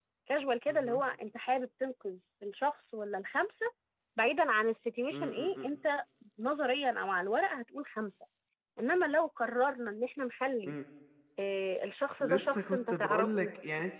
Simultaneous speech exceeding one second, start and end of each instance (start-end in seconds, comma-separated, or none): 12.2-13.5